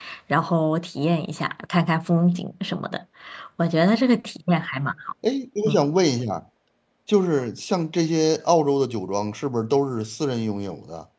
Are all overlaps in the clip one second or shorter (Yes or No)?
Yes